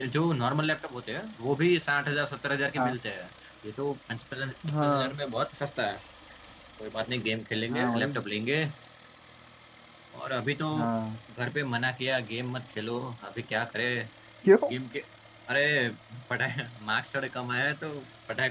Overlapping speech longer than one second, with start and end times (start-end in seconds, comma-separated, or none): none